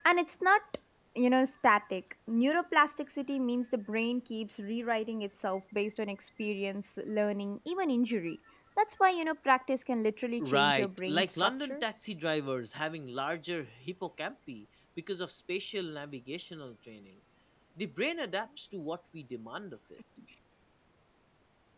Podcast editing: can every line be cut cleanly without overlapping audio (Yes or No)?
No